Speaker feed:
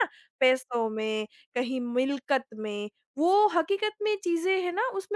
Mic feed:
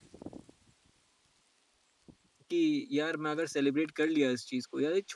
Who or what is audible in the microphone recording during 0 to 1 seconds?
neither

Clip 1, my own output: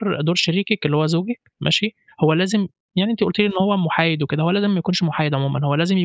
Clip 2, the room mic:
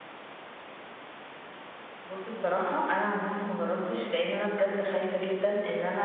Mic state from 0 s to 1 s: neither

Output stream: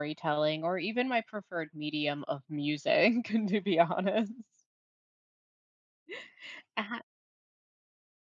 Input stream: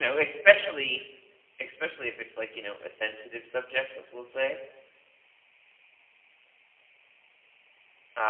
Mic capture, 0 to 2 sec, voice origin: user only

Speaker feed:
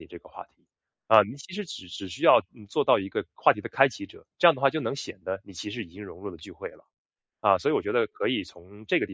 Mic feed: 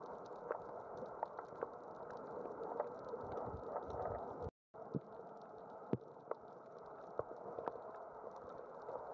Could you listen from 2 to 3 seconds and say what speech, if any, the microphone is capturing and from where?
neither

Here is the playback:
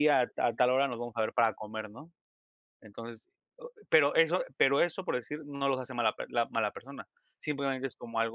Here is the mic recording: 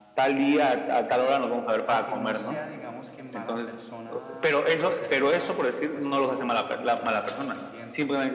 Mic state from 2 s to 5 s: both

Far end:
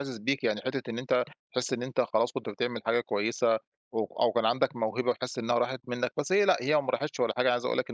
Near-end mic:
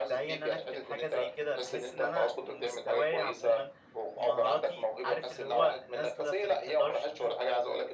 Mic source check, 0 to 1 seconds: both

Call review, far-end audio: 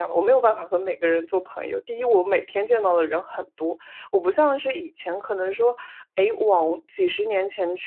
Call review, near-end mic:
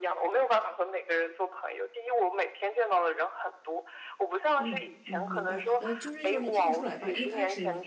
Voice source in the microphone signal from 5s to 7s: both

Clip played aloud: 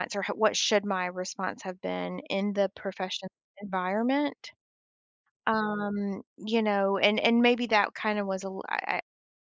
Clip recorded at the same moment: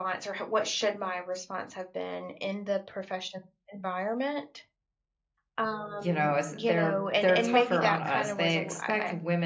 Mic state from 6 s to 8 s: both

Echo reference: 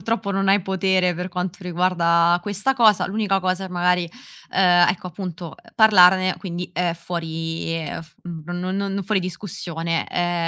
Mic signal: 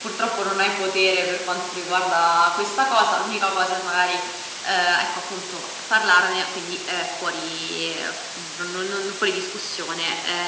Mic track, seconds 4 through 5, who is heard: echo only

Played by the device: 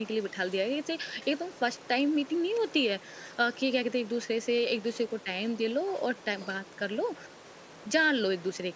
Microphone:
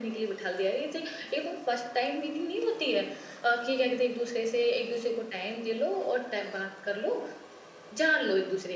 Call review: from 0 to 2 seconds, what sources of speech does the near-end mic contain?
echo only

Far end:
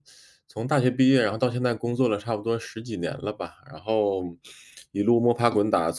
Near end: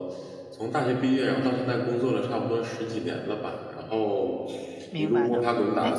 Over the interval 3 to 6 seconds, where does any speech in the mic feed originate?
both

